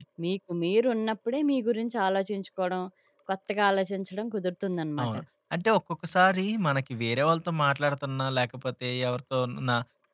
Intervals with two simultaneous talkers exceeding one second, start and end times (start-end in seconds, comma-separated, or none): none